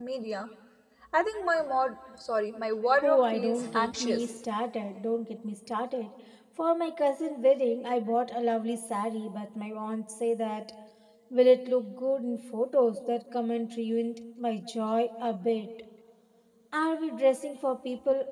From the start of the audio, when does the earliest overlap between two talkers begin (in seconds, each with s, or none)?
3.0 s